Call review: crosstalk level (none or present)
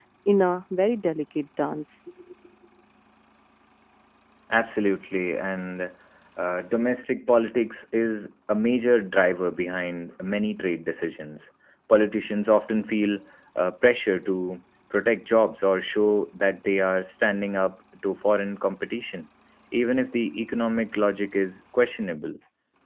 none